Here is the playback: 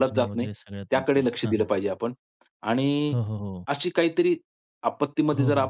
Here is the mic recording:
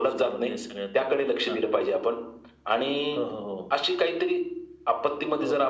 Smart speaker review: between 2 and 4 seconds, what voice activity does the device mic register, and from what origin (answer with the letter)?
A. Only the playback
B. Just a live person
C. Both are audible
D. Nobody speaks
A